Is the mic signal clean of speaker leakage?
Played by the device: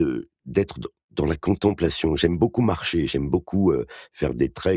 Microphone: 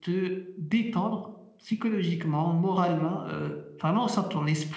Yes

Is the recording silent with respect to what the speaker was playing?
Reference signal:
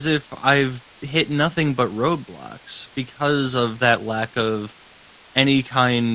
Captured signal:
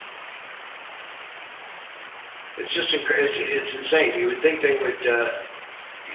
Yes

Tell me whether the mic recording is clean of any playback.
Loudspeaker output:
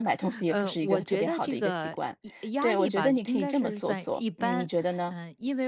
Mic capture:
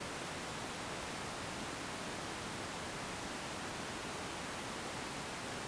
Yes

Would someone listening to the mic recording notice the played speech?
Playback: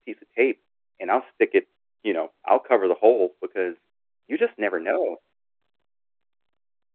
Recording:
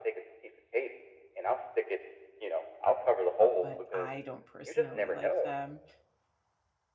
Yes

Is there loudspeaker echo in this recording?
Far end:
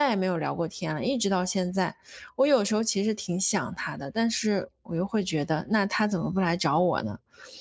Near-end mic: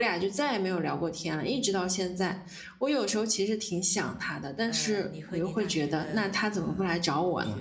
Yes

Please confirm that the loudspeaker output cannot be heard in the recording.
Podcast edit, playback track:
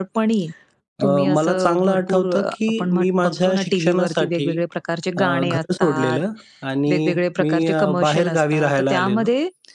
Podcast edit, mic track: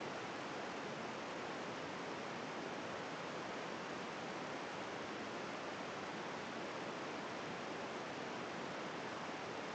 Yes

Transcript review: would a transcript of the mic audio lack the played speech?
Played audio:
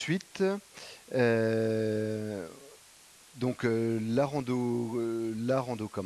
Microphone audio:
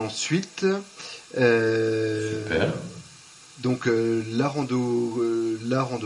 No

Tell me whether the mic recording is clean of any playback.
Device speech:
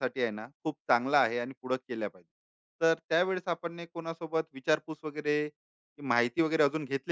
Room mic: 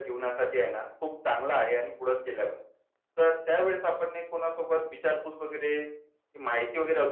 No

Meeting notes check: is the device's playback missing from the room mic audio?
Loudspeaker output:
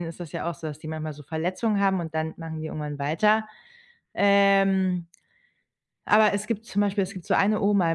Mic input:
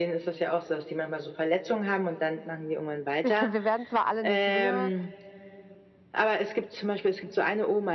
No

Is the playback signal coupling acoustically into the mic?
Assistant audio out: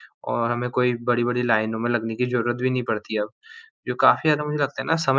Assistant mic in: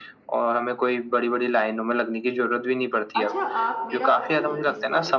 Yes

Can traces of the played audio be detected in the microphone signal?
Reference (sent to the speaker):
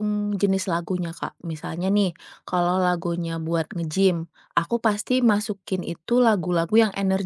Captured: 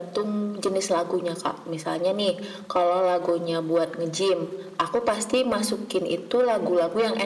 Yes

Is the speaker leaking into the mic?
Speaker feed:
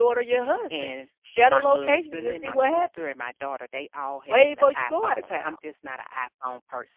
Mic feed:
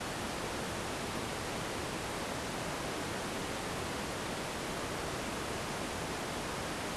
No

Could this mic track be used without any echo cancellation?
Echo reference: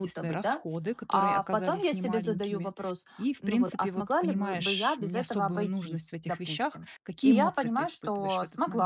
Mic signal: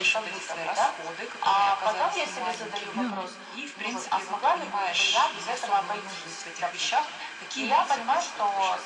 No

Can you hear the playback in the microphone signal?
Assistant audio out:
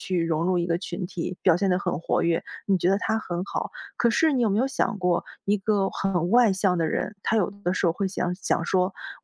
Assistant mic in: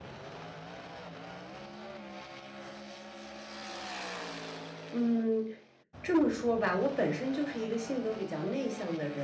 No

